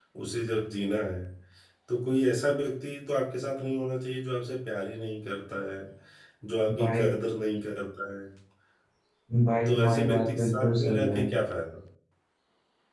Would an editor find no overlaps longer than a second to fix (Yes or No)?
No